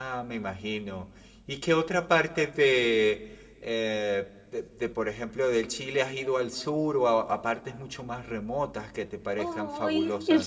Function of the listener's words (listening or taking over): taking over